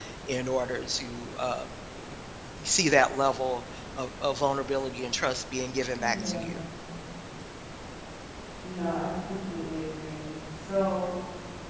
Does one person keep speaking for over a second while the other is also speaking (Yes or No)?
No